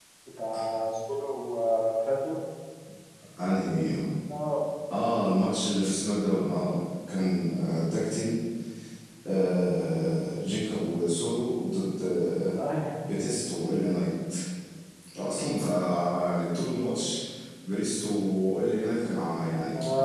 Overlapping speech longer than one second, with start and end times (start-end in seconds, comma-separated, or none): none